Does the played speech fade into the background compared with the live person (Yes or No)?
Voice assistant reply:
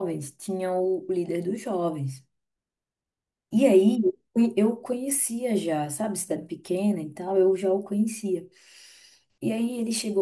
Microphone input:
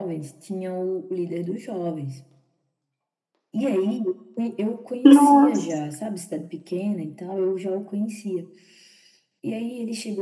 Yes